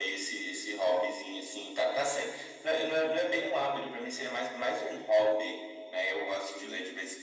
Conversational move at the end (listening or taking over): listening